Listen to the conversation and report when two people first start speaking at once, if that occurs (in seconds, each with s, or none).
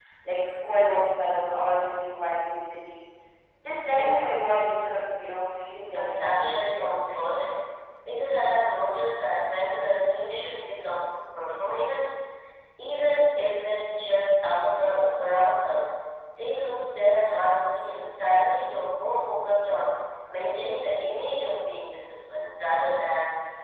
5.9 s